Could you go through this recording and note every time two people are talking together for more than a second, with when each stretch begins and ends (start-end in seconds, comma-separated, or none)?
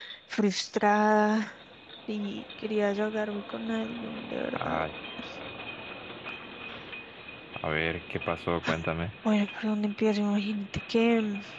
none